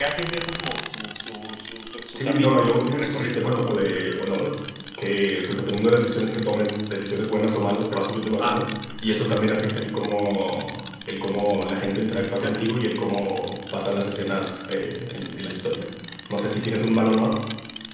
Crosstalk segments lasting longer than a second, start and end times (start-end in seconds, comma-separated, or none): 2.1-3.7